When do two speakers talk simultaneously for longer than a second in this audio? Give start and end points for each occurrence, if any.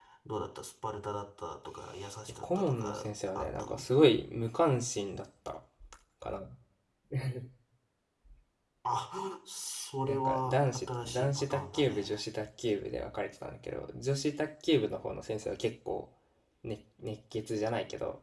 2.4-3.8, 10.1-12.1

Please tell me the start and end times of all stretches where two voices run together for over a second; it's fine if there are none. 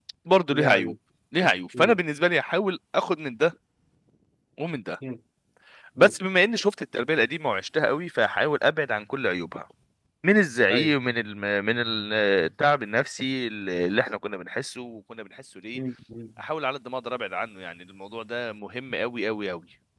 none

